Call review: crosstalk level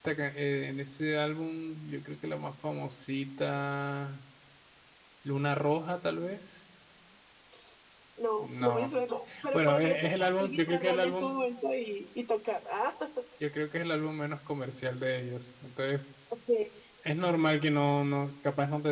present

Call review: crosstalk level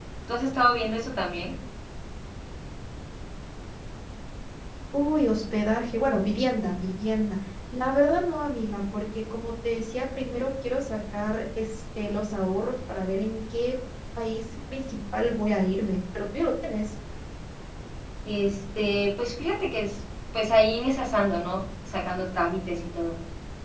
none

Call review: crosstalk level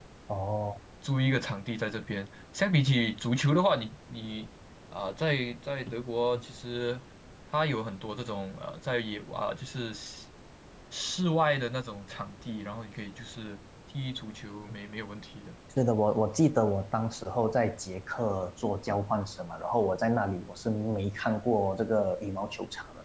none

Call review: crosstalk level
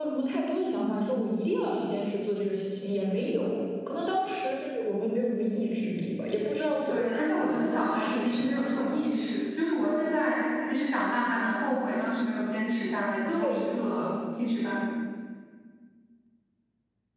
present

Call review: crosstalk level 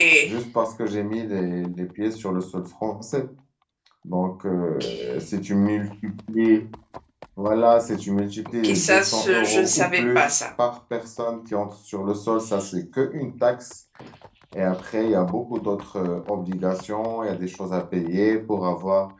present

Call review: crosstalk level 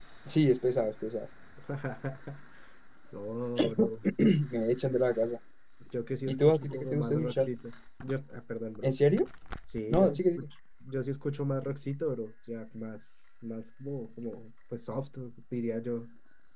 present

